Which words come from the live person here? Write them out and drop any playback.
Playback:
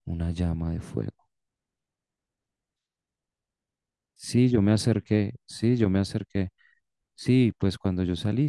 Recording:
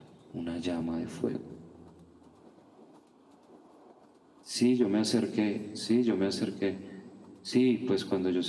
none

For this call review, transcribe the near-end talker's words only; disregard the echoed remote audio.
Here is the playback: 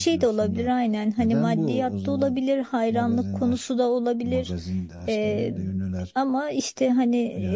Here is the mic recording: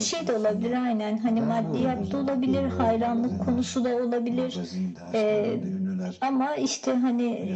Yani kızlar falan

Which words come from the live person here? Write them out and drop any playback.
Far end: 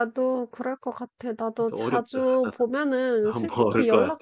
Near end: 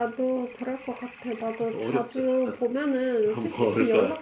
none

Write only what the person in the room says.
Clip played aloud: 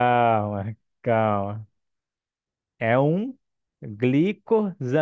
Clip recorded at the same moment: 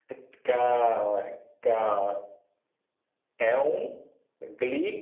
none

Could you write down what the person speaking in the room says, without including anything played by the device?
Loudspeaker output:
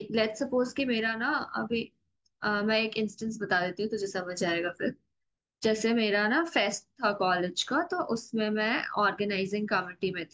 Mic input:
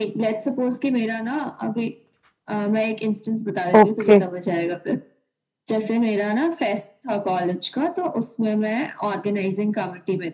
ओके

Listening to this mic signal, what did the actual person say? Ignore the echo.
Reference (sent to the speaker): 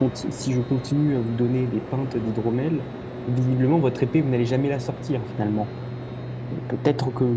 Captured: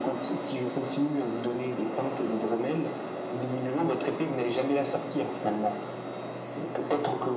none

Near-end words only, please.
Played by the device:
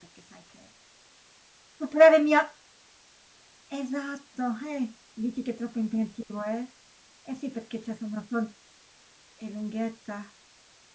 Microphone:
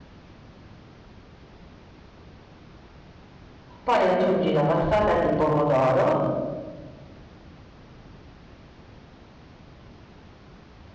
poi aggiungi la passata di pomodoro

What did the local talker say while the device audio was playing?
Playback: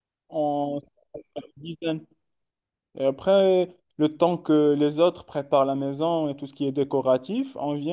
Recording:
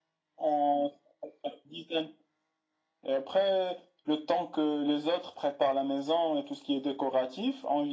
none

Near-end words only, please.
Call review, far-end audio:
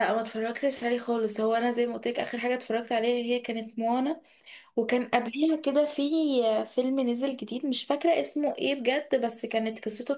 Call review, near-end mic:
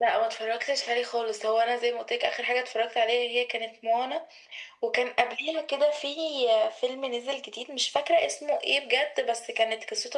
none

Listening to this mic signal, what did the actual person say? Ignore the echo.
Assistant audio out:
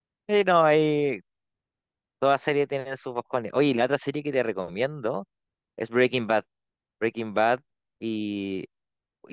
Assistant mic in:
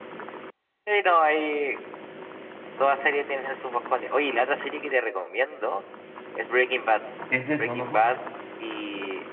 Es del segundo juego.

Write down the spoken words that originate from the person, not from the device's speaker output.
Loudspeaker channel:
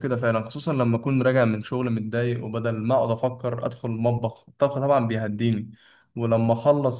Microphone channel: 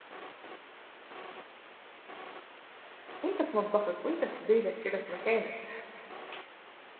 وانت في مطبخك وانت في بيتك كده في مكانك

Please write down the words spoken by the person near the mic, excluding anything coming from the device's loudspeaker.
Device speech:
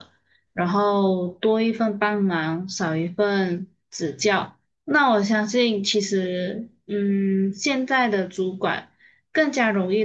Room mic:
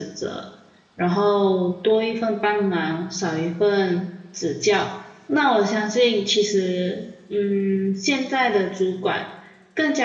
none

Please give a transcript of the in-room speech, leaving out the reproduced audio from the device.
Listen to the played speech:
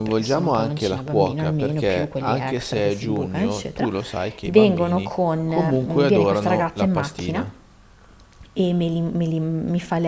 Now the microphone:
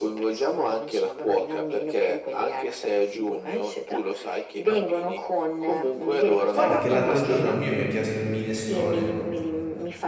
Guarda che l'altro giorno il mio mi ha chiesto il minestrone,

